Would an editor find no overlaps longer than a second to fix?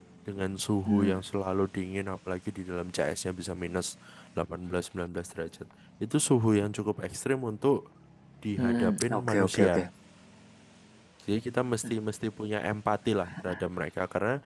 No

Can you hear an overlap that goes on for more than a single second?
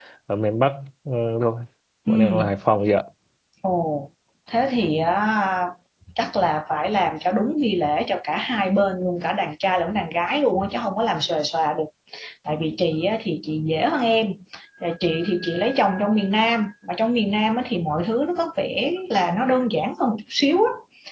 No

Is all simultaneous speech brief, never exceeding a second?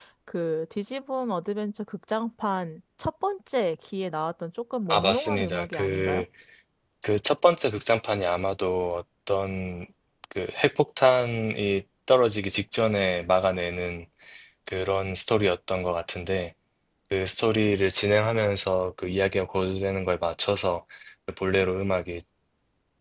No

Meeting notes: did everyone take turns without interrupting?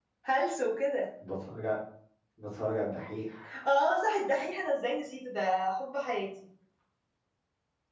Yes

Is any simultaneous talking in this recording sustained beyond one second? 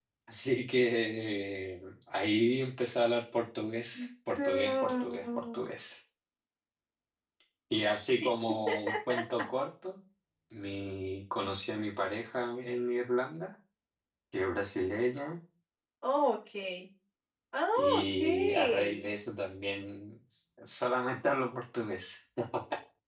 Yes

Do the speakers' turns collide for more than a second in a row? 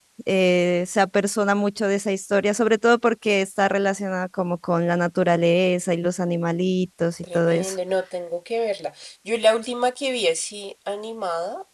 No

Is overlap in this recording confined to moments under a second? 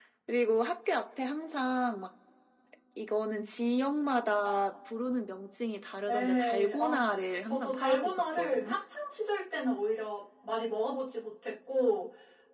No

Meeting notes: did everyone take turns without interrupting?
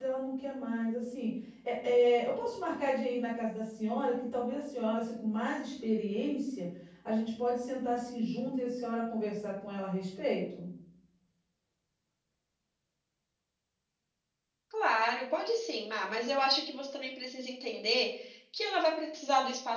Yes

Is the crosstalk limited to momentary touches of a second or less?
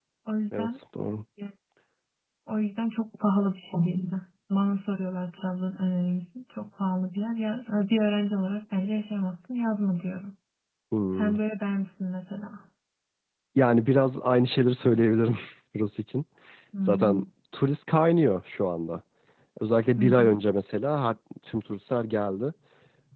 Yes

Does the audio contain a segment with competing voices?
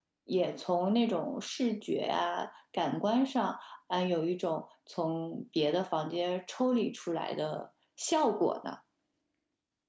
No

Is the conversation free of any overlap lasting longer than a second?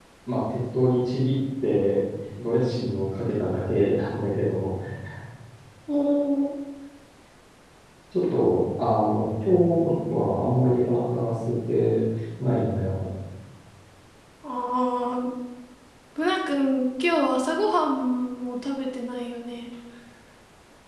Yes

